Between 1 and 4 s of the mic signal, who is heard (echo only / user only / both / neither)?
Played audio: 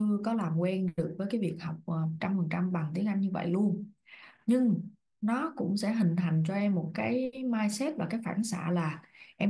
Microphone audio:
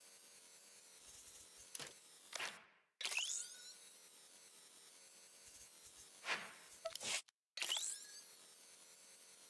neither